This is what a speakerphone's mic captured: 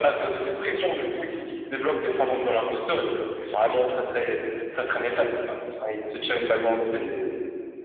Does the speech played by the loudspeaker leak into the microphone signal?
Yes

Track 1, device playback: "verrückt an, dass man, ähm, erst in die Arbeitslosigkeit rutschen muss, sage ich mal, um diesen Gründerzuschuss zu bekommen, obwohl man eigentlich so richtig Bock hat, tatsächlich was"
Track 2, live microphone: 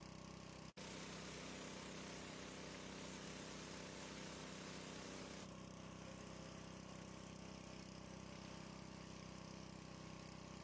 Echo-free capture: Yes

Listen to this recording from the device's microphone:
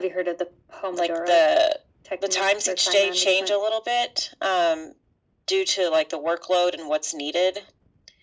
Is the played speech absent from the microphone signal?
No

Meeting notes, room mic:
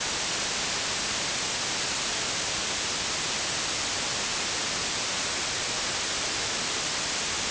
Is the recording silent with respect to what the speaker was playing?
Yes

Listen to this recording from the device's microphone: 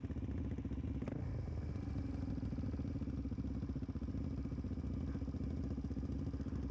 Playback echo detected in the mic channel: No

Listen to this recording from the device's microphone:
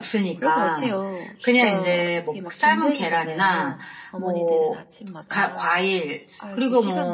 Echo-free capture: No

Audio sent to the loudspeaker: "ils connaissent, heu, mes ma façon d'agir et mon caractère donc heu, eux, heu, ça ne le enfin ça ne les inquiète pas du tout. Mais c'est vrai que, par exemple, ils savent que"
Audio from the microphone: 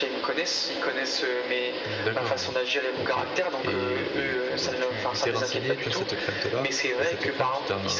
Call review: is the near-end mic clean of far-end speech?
No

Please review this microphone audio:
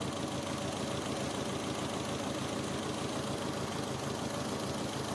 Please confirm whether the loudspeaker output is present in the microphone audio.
No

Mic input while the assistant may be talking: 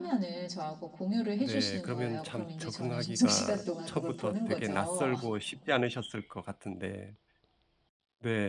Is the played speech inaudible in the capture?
No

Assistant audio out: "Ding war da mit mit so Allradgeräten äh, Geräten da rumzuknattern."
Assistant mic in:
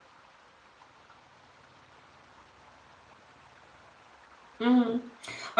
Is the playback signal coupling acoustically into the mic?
No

